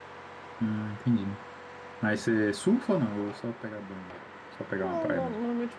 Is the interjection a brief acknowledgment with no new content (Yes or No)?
No